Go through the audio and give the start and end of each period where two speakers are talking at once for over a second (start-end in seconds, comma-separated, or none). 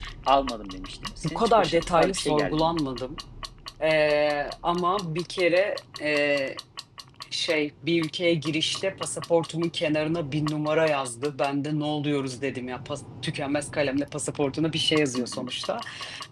1.2-2.8